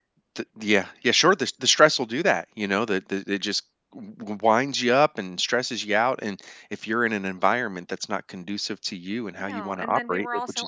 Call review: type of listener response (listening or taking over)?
taking over